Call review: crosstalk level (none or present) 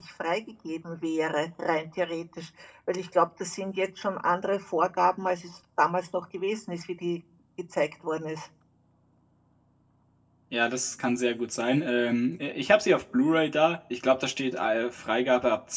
none